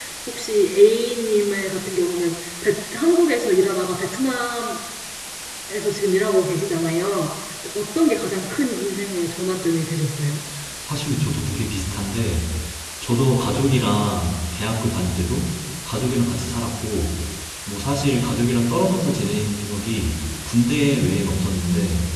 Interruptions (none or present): none